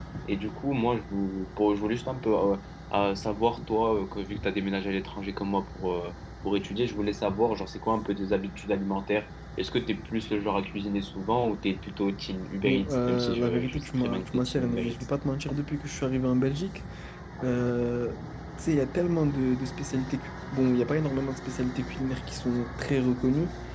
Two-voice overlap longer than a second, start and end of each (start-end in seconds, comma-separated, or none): 12.6-14.9